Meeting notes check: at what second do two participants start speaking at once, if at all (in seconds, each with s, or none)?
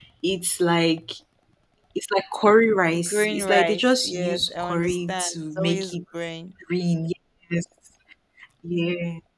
2.9 s